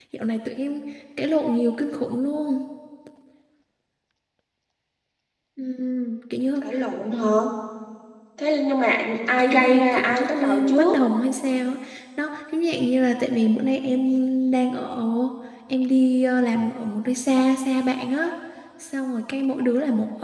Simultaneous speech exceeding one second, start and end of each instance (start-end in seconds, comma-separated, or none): 9.4-11.0